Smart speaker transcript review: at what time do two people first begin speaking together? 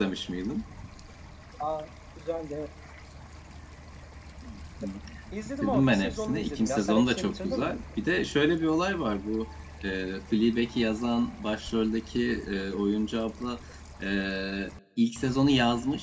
5.6 s

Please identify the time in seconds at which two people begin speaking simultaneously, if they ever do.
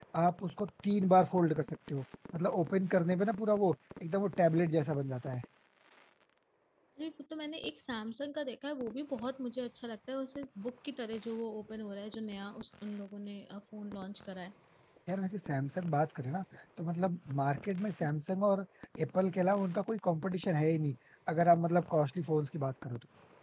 none

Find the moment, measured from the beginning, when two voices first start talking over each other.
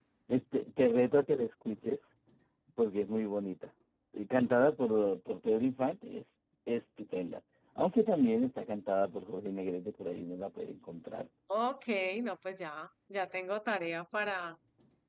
none

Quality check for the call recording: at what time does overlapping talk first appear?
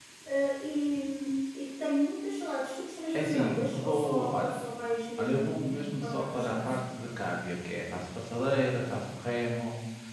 3.1 s

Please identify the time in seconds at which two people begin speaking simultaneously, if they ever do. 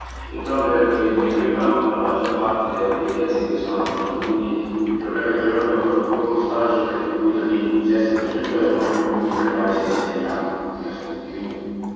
none

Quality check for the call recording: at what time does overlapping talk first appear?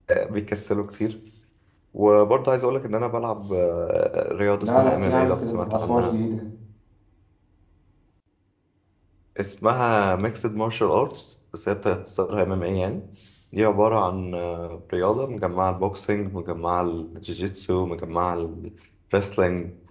4.6 s

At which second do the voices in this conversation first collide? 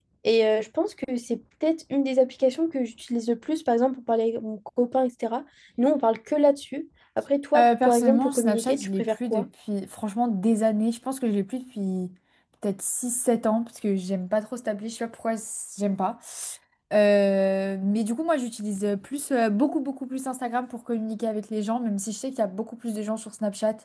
7.5 s

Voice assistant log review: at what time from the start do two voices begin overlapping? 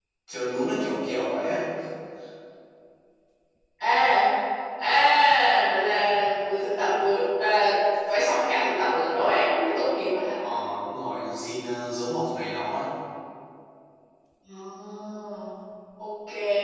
none

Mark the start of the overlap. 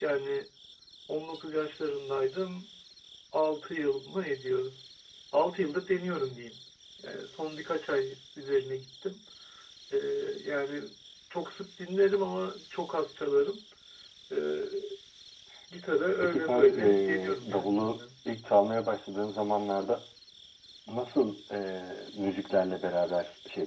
16.2 s

